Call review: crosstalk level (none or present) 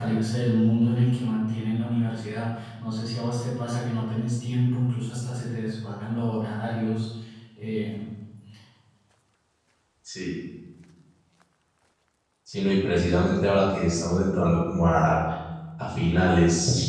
none